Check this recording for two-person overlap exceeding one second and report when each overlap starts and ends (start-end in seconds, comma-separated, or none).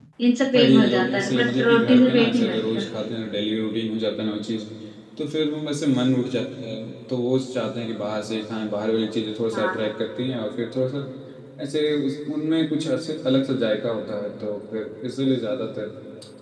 0.5-2.8